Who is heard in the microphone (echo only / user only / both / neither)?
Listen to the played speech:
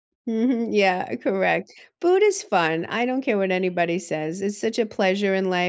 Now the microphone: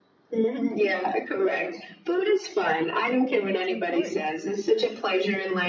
both